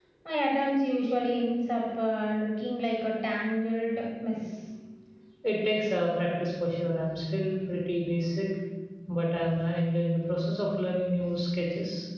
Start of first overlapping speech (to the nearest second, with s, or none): none